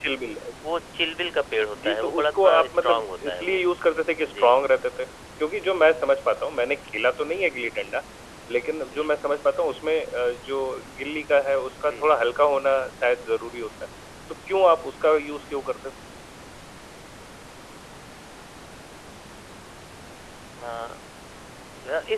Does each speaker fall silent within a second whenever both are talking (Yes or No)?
No